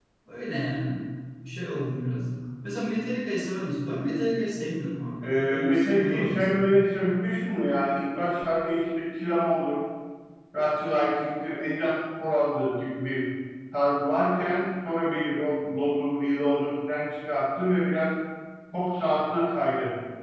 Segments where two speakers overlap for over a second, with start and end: 5.2-6.7

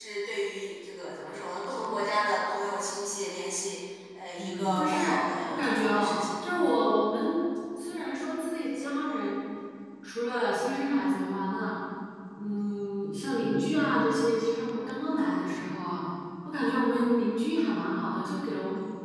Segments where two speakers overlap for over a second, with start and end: 4.4-6.2

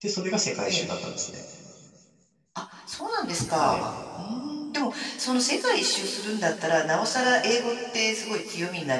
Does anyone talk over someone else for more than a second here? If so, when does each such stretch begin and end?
none

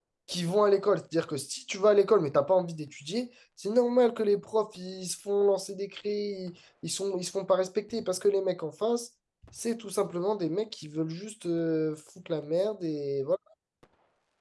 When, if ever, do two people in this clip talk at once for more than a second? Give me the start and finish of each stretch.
none

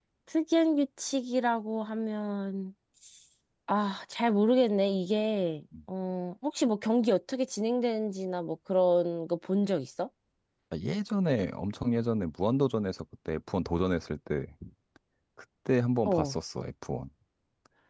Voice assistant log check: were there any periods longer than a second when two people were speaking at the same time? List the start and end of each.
none

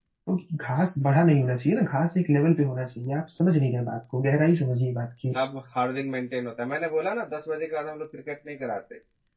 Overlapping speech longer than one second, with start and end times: none

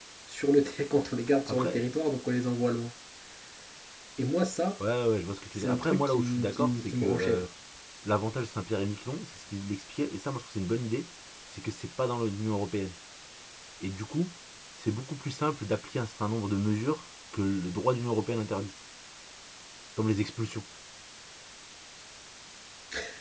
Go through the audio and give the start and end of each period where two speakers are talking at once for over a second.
5.6-7.4

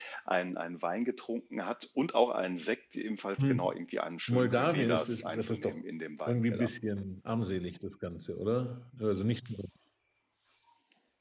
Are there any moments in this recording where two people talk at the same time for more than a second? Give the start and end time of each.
4.3-5.8

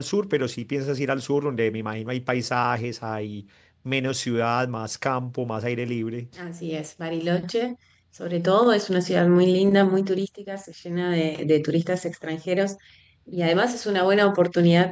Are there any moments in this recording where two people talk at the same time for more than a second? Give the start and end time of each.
none

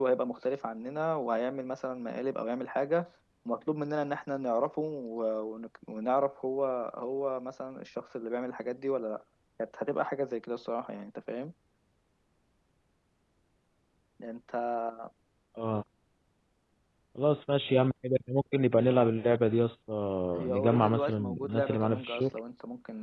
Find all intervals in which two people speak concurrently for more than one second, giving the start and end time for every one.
20.5-22.3

